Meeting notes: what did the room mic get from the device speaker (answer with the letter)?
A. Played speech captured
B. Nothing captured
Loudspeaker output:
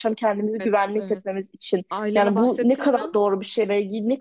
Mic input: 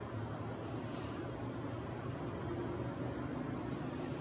B